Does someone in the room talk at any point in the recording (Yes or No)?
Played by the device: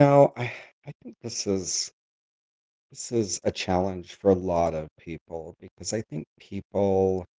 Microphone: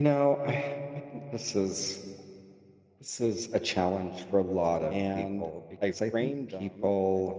Yes